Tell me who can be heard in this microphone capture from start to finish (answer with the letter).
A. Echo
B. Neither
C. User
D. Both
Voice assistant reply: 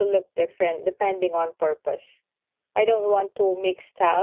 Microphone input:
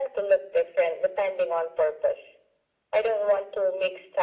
A